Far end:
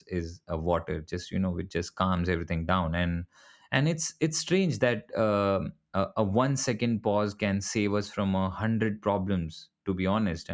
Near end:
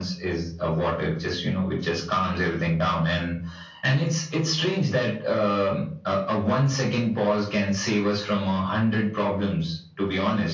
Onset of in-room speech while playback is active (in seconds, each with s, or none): none